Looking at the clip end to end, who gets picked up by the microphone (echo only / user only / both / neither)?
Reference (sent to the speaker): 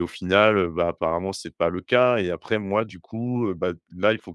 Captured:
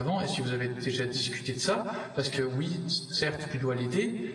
user only